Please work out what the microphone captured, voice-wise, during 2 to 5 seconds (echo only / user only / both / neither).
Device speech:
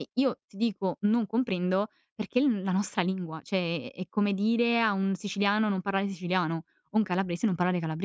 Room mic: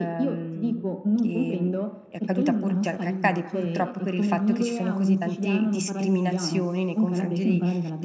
both